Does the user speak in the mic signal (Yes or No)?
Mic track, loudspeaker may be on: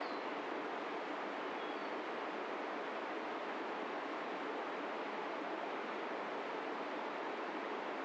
No